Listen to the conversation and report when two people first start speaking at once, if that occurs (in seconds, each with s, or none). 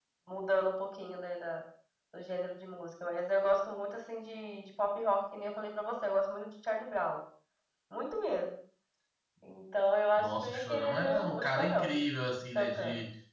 10.2 s